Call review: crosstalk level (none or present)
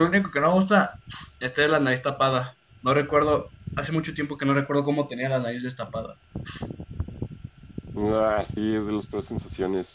none